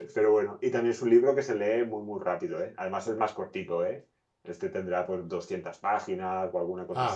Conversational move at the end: listening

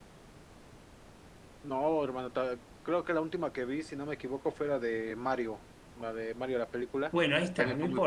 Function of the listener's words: taking over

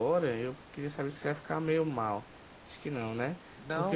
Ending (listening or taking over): listening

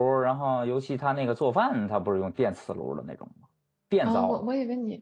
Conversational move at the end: taking over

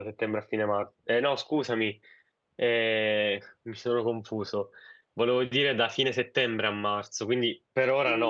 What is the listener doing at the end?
taking over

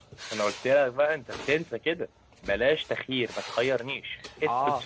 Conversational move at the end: taking over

